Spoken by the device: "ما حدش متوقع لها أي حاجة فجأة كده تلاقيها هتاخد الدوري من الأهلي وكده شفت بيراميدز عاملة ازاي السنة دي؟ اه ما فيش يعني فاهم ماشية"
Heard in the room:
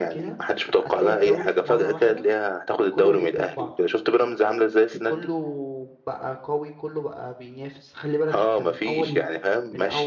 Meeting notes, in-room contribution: present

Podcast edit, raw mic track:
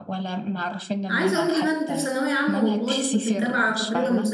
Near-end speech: present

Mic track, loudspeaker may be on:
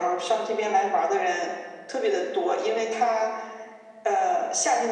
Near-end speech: none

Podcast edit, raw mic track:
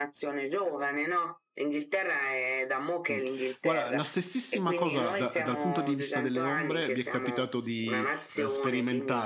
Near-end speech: present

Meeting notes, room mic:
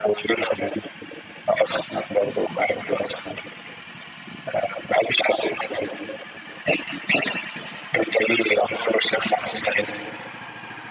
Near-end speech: none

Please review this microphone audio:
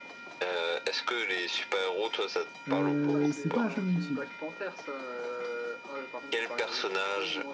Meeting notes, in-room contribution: present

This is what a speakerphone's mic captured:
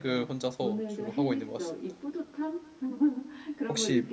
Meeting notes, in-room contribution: present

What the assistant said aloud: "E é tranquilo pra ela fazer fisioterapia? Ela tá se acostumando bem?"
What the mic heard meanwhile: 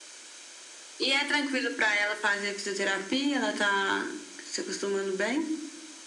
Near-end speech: none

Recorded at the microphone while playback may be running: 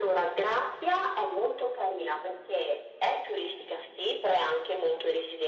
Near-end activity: none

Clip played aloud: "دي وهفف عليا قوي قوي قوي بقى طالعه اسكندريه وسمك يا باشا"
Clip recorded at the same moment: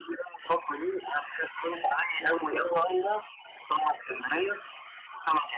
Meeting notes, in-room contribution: none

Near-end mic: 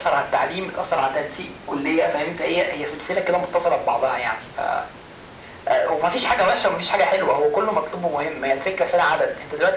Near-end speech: none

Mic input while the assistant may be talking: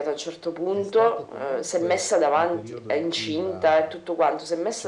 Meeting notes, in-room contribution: present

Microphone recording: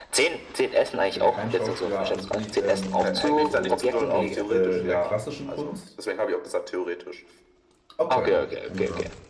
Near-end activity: present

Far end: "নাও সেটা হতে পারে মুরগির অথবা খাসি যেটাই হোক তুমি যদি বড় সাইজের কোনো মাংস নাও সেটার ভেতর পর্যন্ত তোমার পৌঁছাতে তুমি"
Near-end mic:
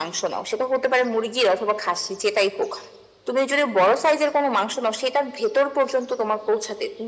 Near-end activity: none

